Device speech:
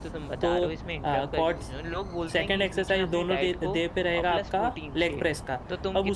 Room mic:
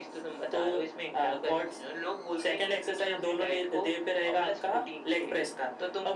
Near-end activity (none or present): none